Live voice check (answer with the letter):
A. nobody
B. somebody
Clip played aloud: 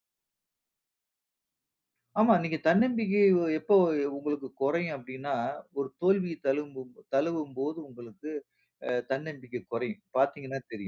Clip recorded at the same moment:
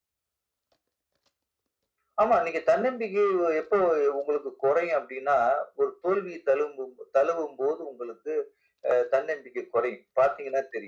A